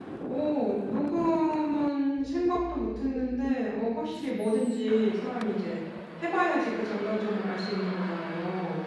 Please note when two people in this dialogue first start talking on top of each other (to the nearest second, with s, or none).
none